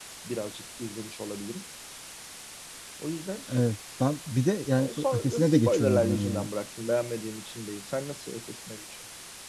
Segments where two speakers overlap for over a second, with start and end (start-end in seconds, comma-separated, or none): 4.8-6.5